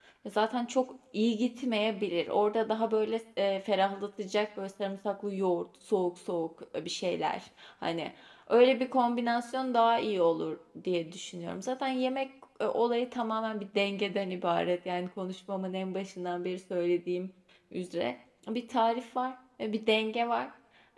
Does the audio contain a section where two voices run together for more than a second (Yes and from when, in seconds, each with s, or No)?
No